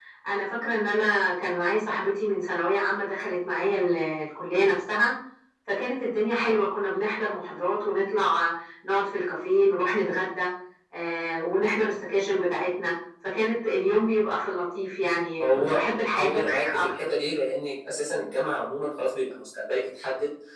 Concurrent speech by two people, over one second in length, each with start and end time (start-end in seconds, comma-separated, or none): 15.4-17.1